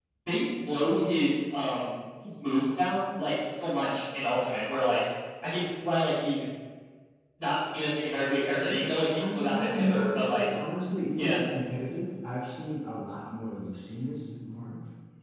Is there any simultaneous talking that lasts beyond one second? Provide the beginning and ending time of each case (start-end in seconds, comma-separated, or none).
9.2-10.4